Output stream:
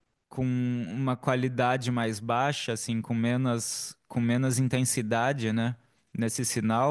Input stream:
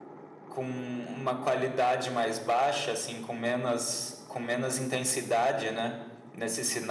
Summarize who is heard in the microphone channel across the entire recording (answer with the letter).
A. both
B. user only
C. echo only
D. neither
C